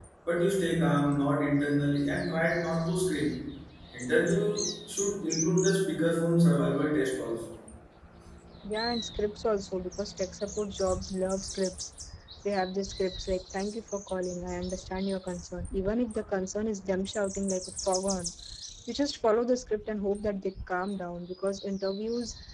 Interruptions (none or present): none